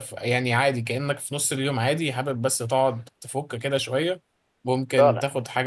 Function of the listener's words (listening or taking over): listening